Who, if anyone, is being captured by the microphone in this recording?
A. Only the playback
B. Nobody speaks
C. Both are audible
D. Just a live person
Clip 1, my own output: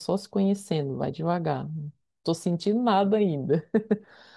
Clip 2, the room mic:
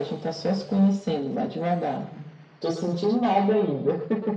A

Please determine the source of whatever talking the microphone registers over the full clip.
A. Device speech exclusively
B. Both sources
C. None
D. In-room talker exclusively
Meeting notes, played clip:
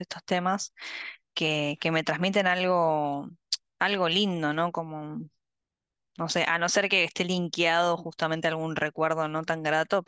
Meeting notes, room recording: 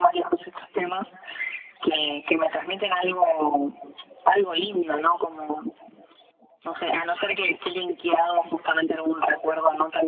A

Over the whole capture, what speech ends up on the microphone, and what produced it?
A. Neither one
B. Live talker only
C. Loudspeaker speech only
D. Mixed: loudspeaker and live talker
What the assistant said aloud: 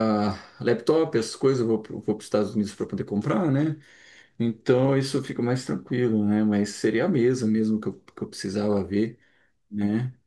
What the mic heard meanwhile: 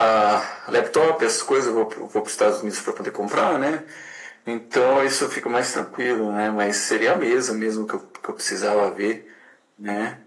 C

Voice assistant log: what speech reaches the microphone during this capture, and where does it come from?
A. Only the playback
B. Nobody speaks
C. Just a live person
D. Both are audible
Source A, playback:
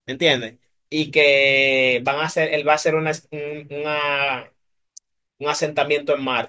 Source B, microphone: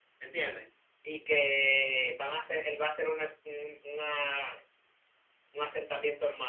A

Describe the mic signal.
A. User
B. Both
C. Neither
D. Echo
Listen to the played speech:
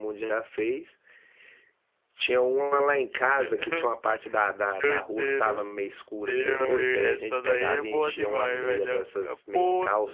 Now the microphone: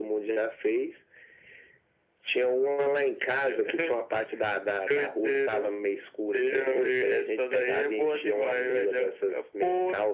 D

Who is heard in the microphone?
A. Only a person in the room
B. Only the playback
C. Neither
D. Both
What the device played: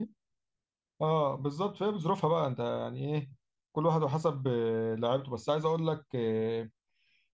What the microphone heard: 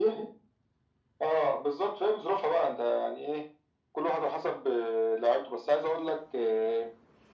B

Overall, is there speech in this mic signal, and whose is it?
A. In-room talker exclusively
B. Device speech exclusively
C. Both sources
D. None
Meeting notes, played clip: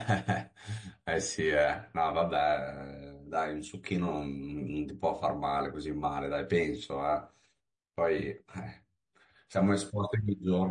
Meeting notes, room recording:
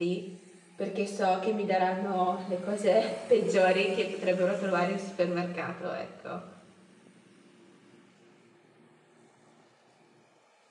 A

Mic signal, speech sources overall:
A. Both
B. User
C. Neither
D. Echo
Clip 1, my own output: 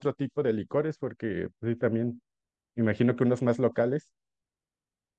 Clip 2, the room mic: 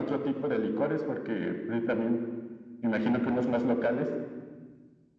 D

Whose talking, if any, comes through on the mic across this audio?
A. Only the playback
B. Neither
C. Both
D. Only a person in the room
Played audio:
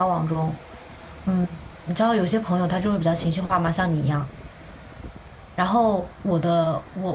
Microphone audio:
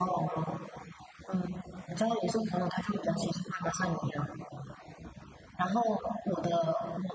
A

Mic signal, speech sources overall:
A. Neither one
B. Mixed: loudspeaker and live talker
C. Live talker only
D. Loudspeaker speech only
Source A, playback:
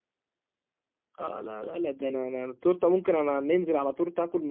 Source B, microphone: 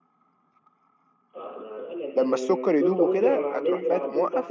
B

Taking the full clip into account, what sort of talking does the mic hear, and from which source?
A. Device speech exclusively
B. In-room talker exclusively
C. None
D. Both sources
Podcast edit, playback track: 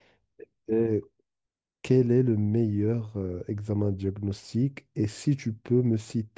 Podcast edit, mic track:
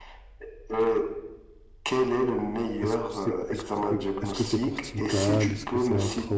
D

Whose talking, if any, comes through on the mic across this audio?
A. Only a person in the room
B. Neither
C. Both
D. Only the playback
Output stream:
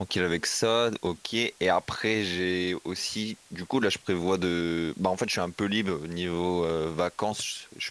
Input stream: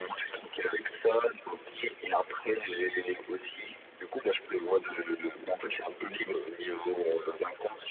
D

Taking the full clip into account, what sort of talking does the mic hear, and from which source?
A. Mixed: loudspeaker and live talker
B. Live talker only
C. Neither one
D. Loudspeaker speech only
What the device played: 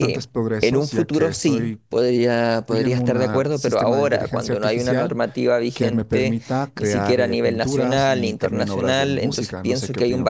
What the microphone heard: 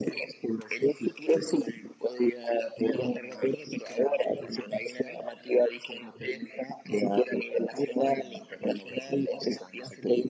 D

